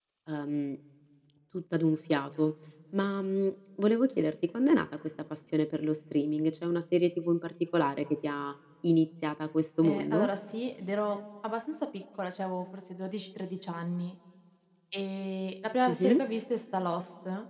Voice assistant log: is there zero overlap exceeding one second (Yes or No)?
Yes